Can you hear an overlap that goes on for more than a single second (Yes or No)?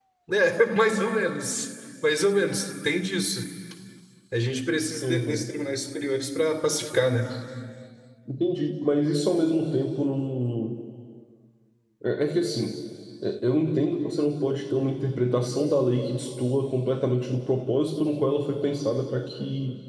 No